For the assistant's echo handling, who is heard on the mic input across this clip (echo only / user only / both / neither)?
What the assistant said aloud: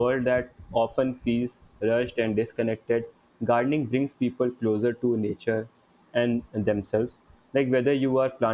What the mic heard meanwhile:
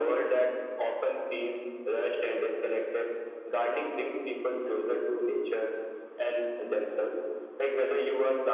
echo only